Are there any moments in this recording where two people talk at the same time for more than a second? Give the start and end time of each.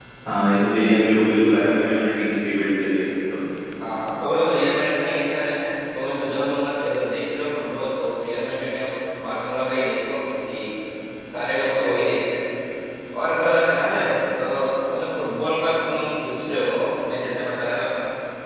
none

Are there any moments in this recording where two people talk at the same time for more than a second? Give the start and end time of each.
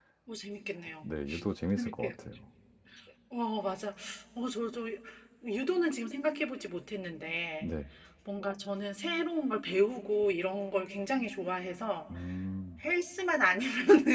none

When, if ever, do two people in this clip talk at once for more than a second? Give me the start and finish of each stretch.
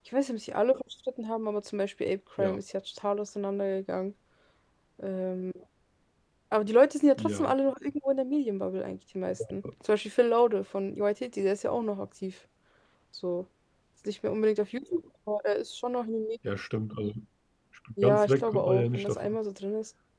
18.0-19.4

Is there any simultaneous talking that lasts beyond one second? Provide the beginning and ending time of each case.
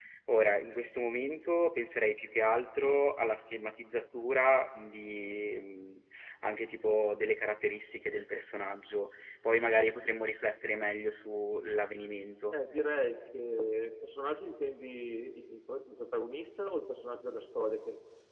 none

